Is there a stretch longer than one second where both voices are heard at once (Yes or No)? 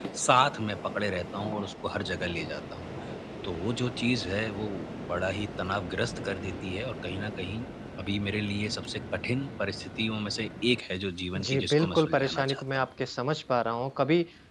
Yes